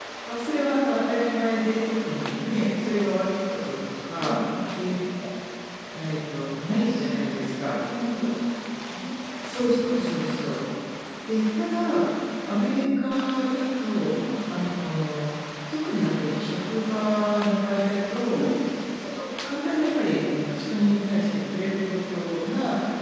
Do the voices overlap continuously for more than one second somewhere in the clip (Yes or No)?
No